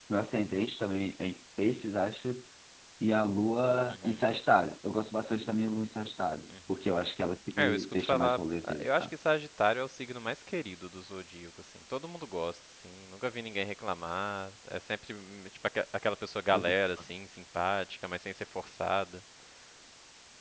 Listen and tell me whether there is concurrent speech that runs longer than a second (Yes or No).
Yes